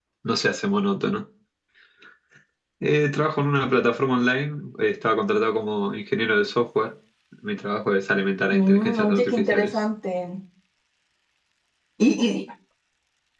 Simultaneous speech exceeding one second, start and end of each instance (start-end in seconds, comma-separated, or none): 8.5-9.8